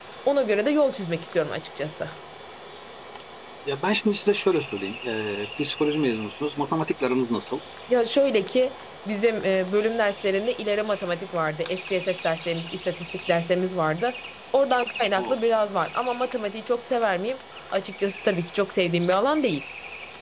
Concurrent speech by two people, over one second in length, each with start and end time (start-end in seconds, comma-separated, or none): none